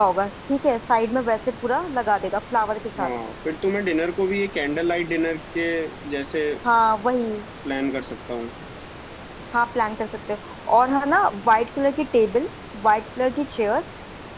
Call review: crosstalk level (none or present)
none